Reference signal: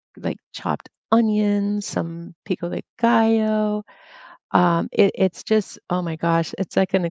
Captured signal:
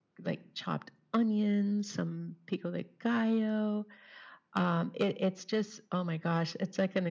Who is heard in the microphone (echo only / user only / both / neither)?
echo only